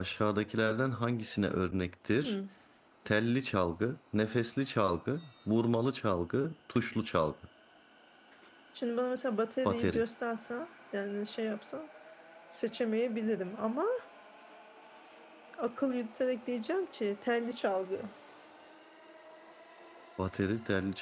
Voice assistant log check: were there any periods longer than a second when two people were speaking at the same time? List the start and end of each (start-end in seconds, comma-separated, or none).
none